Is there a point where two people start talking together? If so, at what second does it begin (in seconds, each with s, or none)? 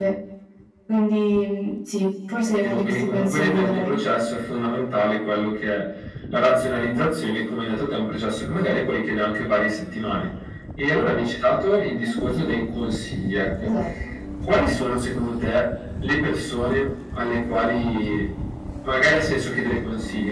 2.4 s